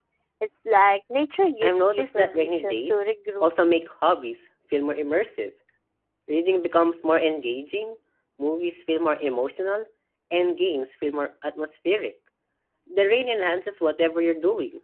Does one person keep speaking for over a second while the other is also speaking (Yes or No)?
Yes